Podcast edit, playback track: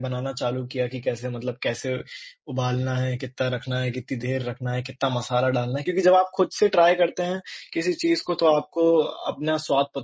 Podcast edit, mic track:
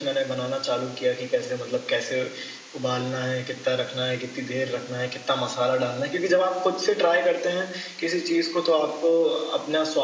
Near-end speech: none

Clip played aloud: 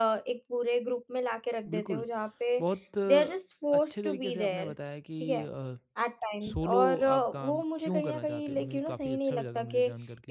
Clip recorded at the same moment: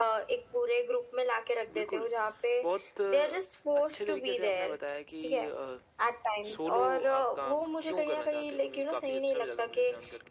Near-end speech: none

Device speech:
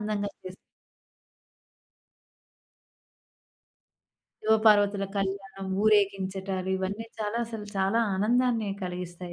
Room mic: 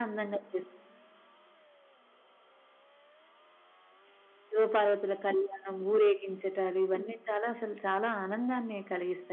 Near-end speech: none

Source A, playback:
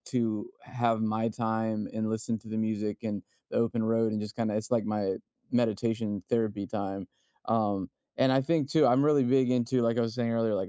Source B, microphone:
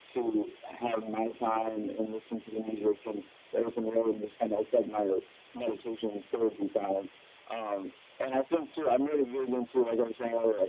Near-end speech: none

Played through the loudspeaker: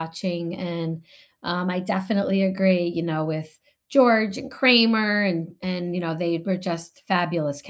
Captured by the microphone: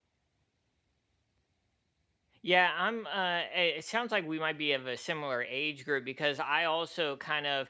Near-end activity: present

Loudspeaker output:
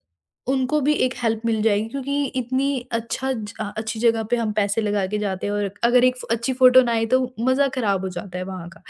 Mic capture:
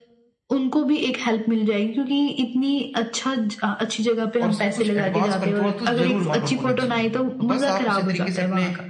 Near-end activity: present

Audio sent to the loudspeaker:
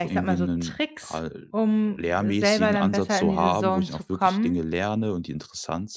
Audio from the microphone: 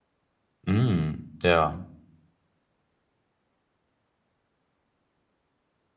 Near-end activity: present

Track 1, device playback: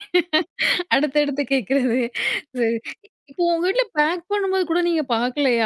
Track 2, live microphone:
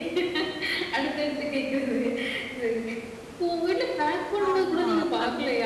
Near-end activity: present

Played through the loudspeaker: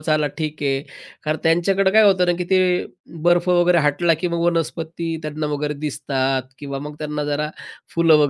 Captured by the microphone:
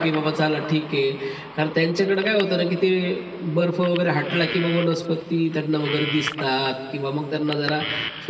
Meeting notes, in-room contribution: none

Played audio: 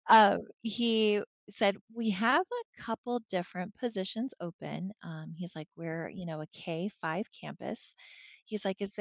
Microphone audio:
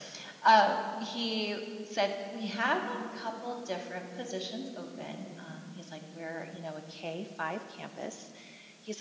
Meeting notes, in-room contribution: none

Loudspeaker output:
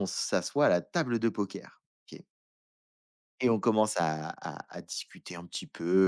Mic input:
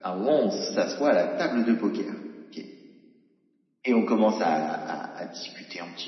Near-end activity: none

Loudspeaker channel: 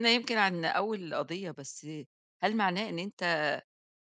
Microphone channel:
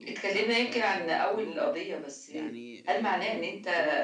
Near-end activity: present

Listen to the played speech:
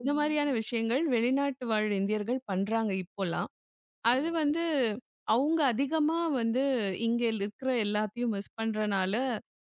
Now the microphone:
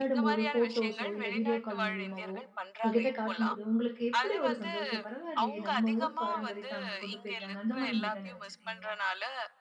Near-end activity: present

